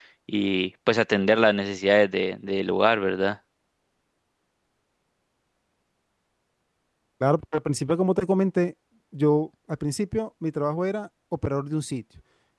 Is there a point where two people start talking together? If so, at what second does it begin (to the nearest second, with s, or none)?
none